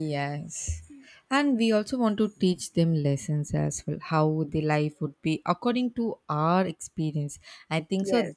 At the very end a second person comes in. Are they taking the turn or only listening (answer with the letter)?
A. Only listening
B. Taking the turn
A